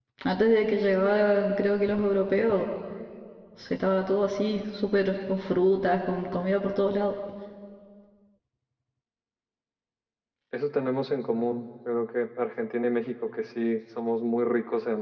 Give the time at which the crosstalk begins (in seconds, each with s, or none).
none